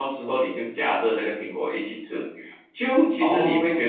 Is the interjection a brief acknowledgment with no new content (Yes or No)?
Yes